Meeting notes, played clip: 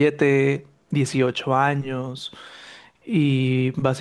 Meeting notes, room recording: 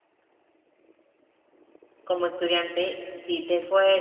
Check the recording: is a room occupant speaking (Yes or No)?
Yes